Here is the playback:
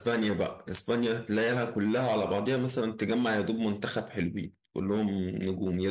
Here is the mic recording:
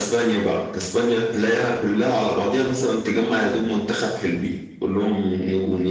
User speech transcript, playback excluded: none

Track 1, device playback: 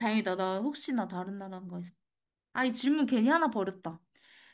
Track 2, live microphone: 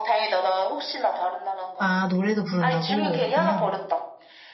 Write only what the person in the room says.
아, 노래도 부른다고? 그냥

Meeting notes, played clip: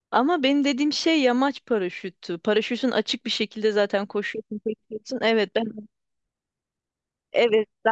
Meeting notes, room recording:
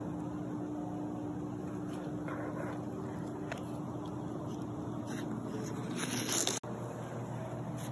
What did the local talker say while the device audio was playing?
none

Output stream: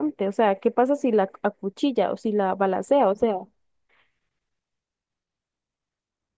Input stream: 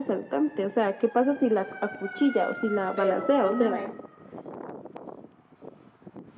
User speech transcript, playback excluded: Pero una vez

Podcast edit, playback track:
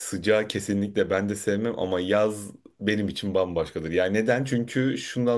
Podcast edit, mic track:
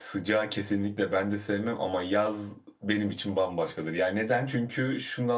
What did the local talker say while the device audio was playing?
none

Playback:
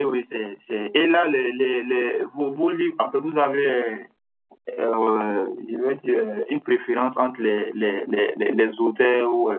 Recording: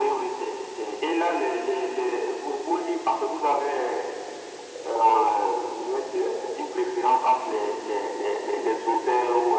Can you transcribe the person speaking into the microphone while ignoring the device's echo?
none

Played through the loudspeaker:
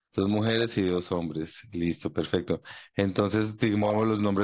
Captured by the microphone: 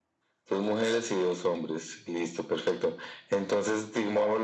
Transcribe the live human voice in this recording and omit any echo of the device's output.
none

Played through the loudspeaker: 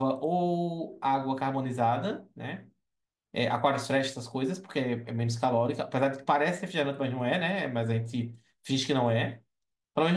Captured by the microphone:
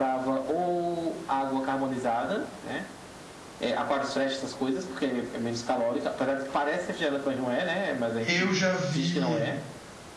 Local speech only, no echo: Eu já vi.

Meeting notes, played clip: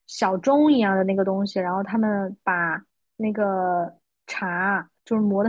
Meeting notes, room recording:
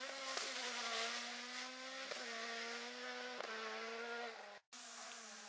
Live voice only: none

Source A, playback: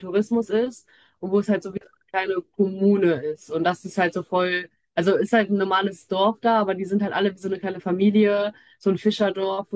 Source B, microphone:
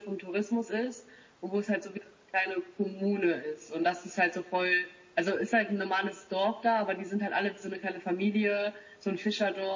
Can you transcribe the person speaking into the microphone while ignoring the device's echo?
none

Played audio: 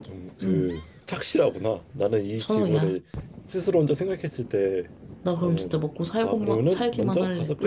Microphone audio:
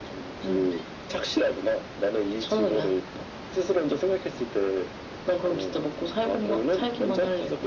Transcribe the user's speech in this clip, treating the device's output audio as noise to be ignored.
none

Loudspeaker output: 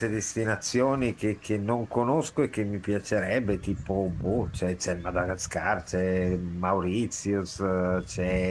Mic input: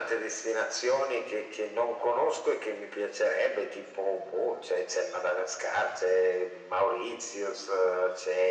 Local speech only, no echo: none

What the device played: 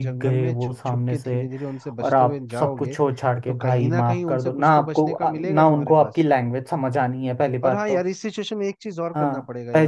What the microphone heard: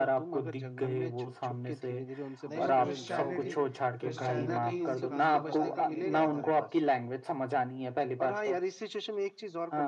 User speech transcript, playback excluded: नहीं वो क्रिश्चियनिटी क्रिश्चियनिटी सिखाने और बताने के लिए गया था

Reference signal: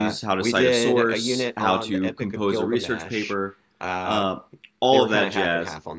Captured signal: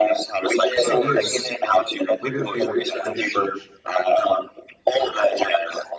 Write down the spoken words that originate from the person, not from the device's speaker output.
How about you? What are your favorite things to teach?

